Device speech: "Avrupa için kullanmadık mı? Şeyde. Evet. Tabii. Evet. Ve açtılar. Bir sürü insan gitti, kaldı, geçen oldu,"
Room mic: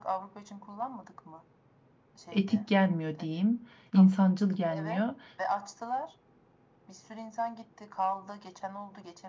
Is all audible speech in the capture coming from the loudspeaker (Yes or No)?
No